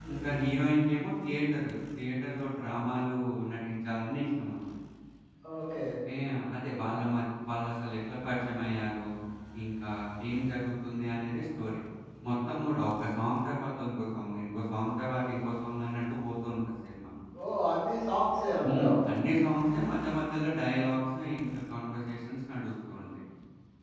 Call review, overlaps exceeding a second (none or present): none